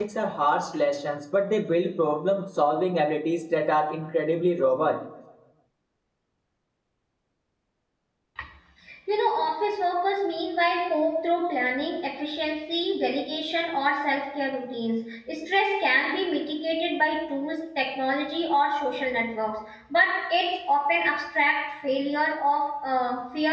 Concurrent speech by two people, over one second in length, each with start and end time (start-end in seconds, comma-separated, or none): none